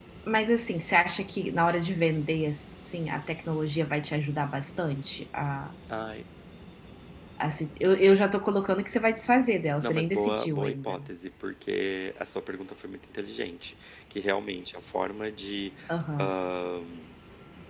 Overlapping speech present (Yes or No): Yes